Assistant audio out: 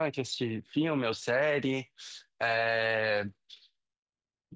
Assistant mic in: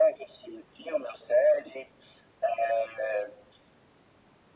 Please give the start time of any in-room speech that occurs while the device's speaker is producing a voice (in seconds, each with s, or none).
none